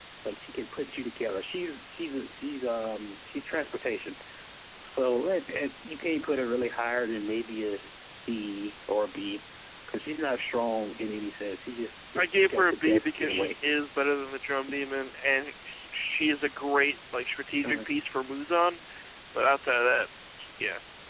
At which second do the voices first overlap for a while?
12.2 s

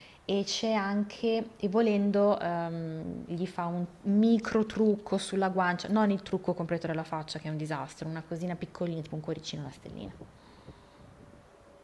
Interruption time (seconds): none

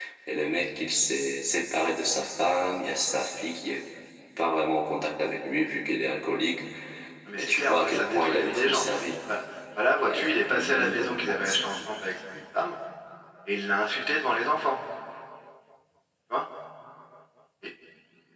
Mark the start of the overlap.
7.4 s

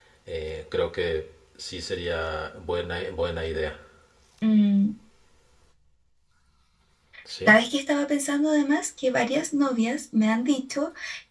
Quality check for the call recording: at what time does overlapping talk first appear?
none

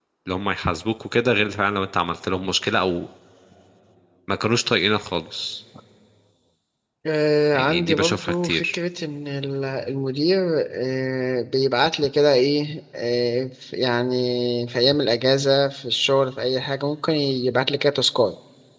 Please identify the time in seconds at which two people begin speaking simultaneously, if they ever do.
7.5 s

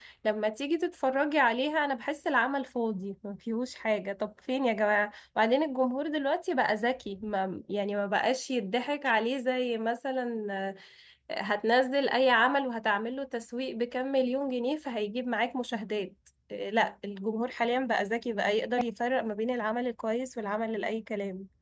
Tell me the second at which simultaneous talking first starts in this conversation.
none

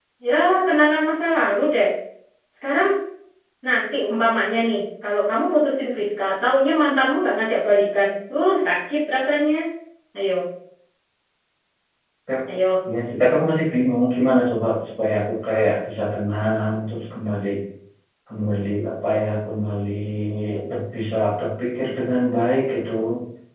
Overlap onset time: none

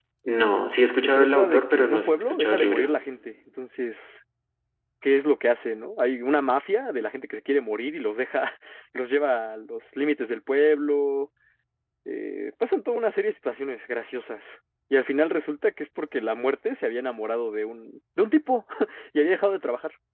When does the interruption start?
1.0 s

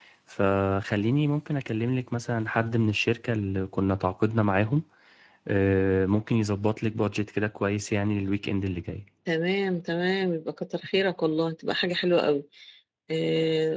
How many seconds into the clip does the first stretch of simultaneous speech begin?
none

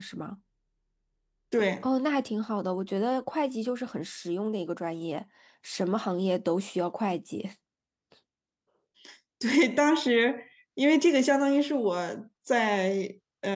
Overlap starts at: none

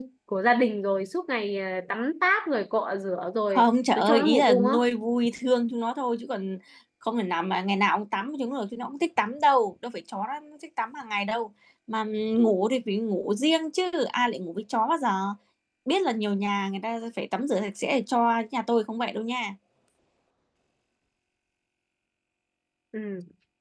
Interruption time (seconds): 3.5 s

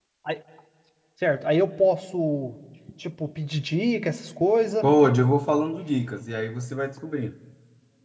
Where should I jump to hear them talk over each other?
none

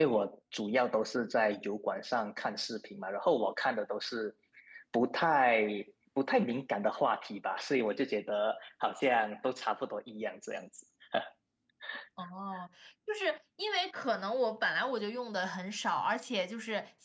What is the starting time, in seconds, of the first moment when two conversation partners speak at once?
none

